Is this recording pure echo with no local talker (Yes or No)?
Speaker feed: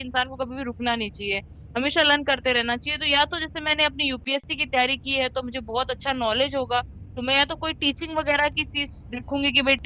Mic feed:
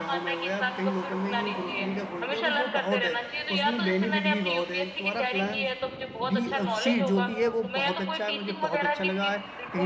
No